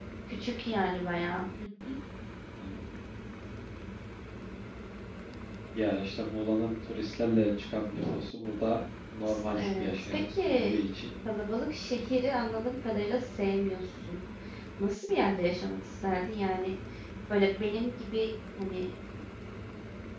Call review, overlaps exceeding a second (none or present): present